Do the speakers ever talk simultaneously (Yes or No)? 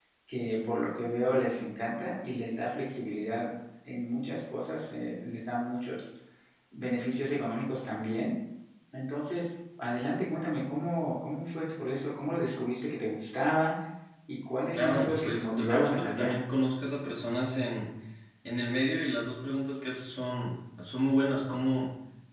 Yes